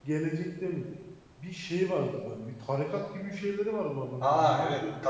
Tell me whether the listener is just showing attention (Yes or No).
No